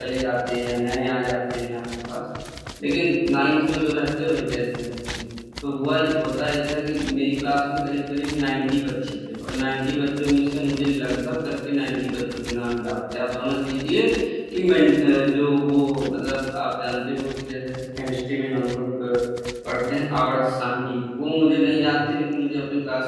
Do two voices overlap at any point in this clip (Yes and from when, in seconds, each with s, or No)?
No